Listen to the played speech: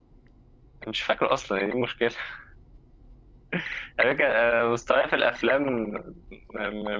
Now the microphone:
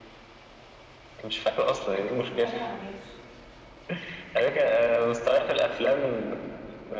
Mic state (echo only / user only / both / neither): both